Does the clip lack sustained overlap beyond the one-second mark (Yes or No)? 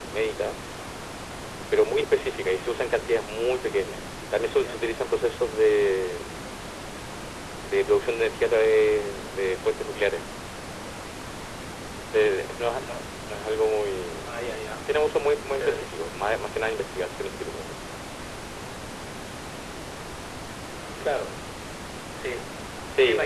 Yes